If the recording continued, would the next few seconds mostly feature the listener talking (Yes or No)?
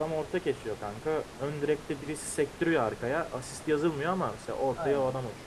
Yes